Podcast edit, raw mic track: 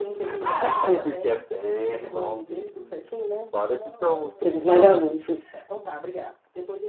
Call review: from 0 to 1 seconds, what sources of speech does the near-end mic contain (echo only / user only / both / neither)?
echo only